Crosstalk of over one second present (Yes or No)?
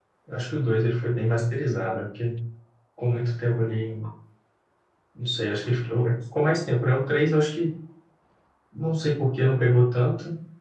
No